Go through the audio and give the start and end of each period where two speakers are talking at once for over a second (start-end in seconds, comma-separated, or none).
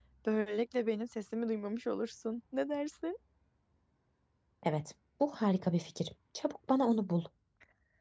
none